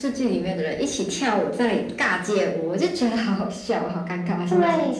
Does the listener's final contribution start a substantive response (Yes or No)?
Yes